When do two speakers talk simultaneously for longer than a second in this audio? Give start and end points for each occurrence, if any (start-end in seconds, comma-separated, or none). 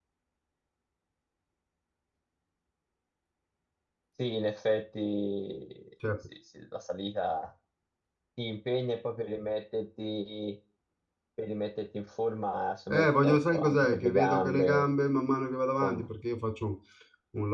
12.9-14.8